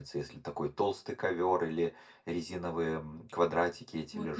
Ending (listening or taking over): taking over